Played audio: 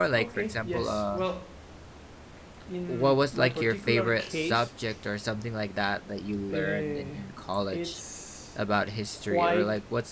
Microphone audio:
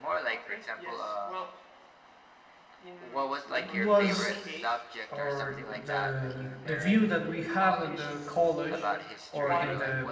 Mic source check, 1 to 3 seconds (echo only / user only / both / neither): echo only